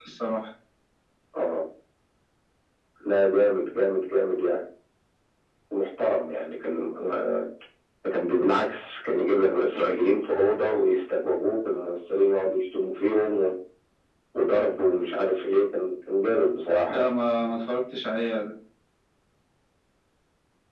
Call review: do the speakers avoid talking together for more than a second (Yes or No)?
Yes